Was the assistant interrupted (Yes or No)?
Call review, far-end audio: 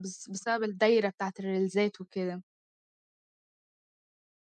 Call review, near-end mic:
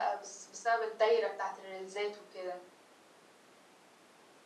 No